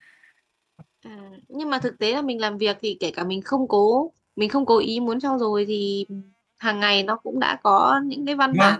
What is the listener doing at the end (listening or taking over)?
listening